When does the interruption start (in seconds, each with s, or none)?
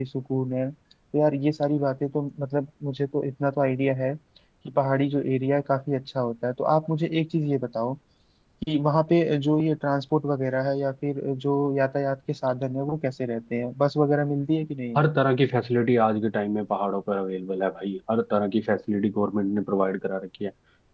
none